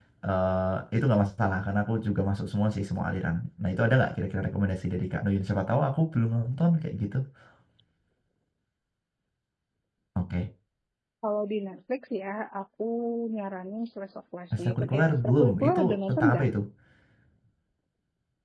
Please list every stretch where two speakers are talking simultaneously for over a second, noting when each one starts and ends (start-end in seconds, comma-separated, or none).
14.6-16.5